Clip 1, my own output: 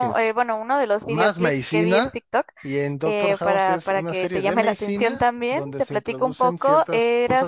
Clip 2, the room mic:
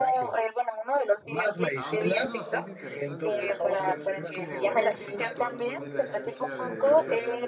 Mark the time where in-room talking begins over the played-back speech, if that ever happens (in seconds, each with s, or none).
1.7 s